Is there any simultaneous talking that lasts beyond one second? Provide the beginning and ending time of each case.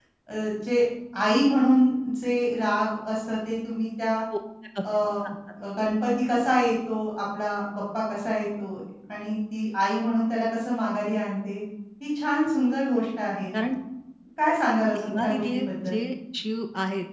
14.7-15.9

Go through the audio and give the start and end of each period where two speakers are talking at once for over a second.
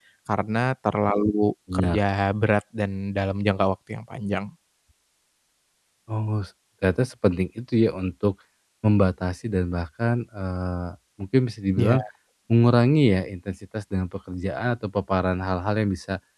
none

